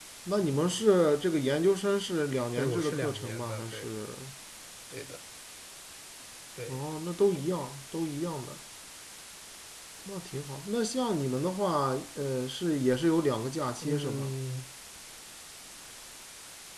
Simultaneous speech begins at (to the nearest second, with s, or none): 3 s